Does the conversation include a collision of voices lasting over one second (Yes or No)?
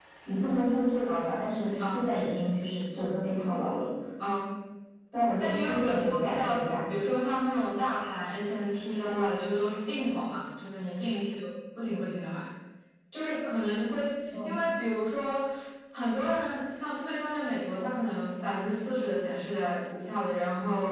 Yes